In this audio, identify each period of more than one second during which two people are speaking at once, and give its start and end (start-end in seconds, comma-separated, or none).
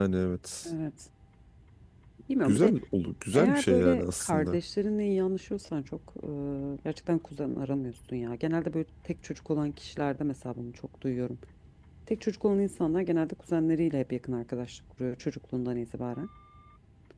3.3-4.6